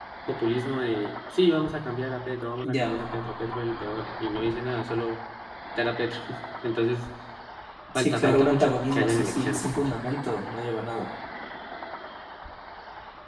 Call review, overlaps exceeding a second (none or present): present